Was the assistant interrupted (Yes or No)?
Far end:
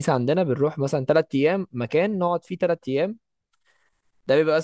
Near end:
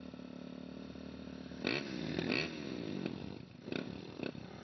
No